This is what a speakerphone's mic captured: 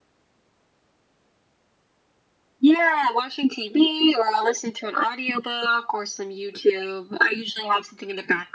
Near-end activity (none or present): none